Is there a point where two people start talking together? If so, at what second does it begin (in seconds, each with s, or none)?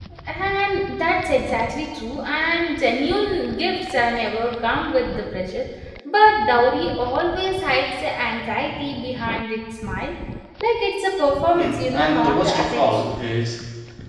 11.5 s